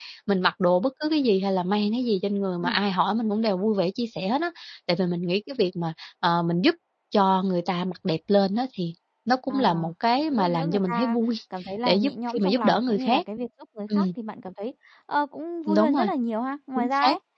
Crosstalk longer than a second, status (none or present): present